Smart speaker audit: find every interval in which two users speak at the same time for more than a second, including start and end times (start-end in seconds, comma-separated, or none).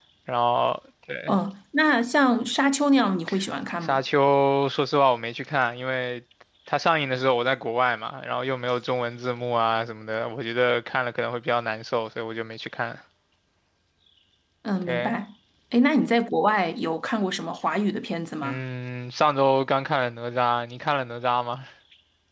none